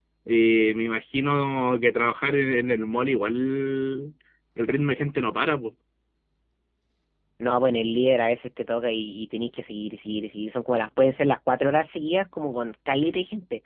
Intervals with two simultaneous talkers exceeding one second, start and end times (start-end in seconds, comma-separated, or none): none